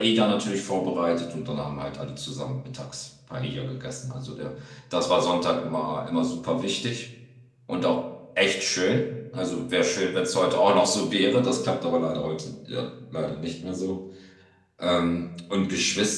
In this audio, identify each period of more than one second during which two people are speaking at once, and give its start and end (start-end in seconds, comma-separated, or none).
none